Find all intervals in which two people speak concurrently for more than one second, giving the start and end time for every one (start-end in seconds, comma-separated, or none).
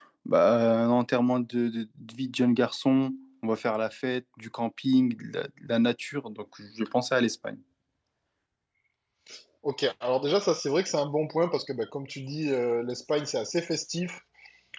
none